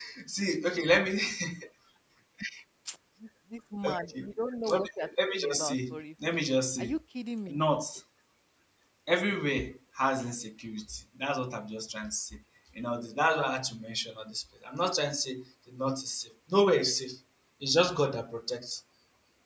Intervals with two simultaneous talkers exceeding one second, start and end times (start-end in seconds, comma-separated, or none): 4.7-6.0